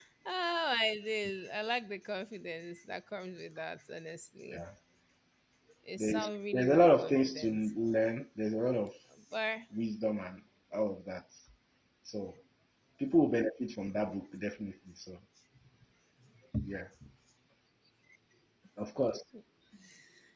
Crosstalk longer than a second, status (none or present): present